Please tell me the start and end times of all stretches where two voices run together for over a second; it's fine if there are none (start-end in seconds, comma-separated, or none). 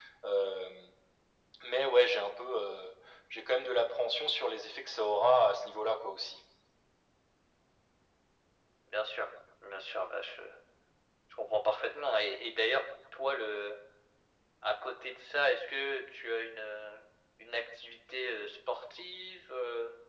none